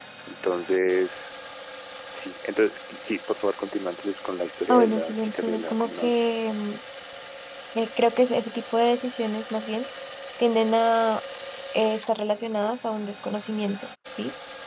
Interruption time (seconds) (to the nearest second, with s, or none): 5 s